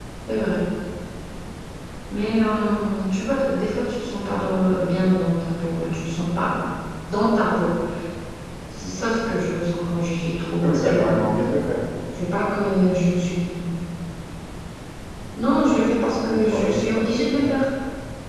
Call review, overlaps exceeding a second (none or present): present